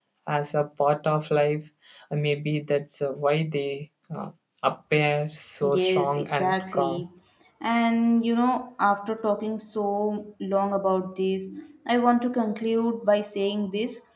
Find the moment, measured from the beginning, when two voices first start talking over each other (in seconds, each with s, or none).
5.6 s